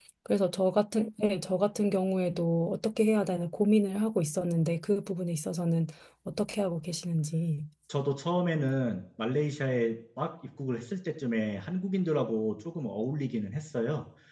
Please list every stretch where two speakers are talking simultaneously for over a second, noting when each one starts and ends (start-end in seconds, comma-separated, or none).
none